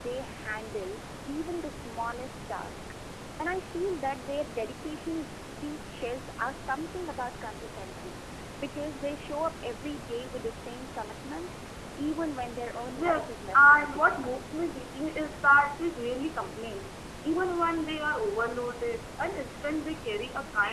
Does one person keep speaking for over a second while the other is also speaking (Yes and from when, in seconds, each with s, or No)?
Yes, from 12.9 s